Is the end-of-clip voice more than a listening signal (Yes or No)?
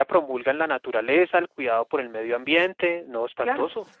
Yes